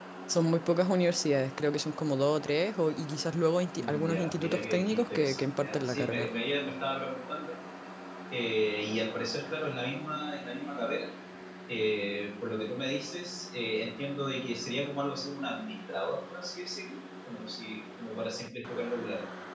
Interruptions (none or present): present